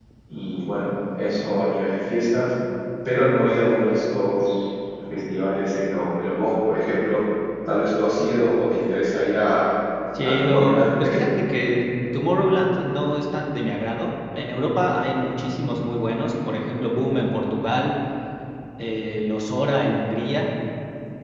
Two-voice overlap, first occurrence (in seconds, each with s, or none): 10.2 s